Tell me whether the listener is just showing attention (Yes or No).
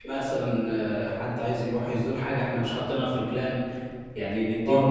No